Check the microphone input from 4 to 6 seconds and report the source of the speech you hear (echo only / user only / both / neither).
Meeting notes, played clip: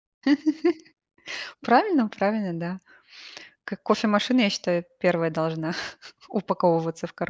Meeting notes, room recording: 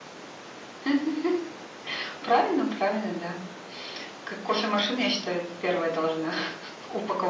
echo only